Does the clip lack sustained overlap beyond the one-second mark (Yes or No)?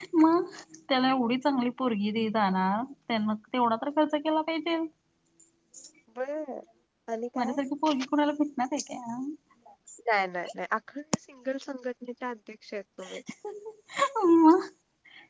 Yes